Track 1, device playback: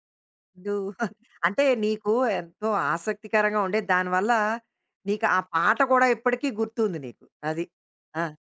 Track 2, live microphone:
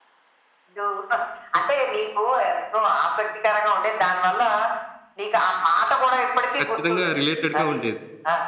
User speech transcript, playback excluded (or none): ఖచ్చితంగా రిలేటెడ్‌గా ఉండేది.